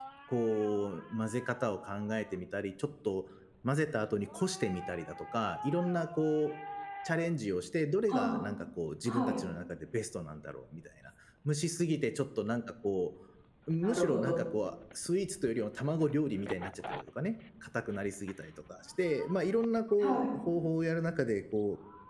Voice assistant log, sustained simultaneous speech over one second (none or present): none